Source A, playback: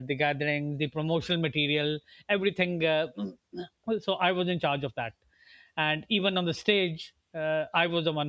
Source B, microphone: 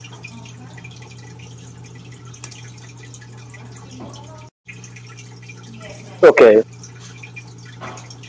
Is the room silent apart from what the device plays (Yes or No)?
No